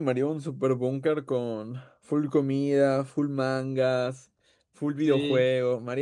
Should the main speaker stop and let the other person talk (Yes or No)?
Yes